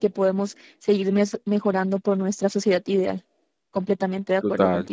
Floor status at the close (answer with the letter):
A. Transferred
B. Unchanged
A